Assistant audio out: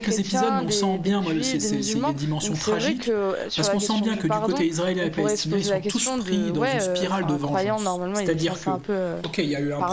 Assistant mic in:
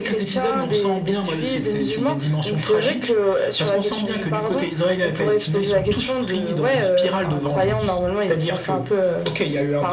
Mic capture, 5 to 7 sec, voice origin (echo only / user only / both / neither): echo only